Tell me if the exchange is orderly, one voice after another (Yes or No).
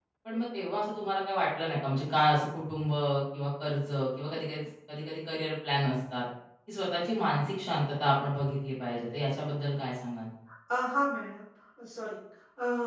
Yes